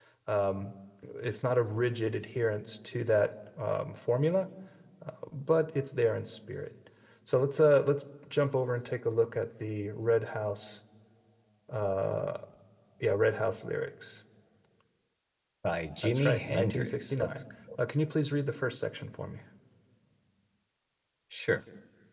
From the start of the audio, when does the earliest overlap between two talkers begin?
16 s

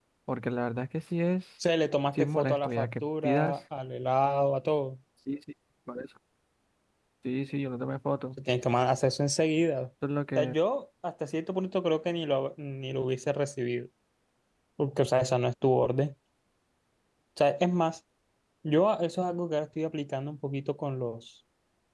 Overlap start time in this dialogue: 2 s

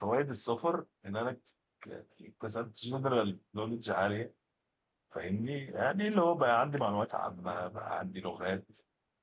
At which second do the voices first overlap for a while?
none

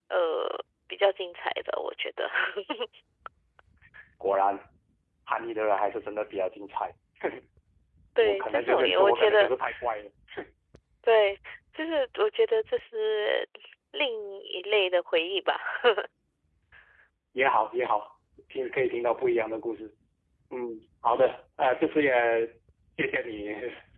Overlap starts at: 8 s

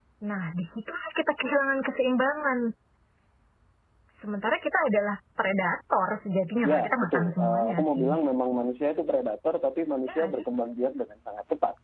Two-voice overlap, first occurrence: 7 s

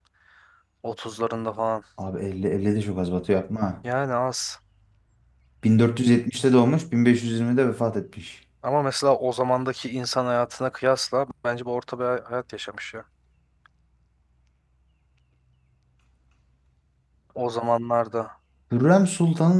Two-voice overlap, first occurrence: none

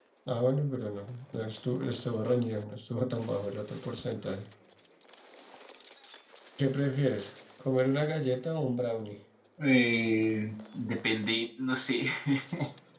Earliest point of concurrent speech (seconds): none

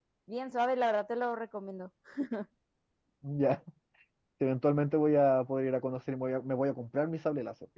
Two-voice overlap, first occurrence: none

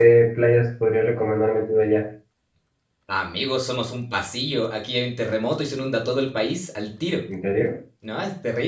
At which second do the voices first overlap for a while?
none

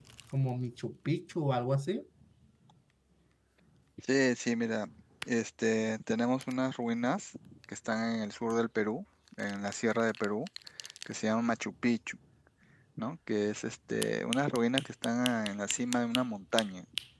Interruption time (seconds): none

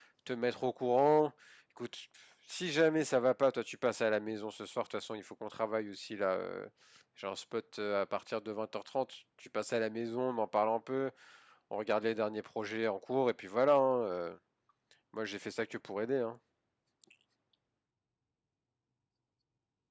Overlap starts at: none

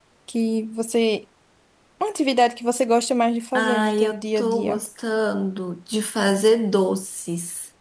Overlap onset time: 4 s

